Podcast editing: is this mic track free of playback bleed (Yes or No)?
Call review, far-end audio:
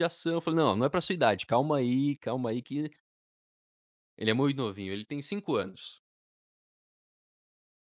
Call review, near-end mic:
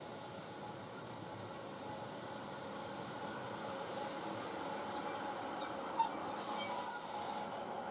Yes